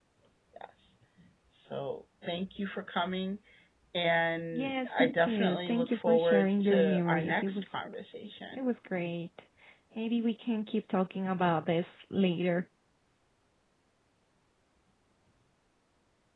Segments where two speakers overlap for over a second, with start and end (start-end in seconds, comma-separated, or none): 4.5-7.7